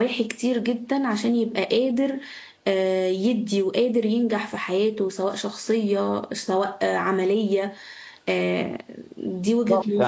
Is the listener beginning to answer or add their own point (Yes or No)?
Yes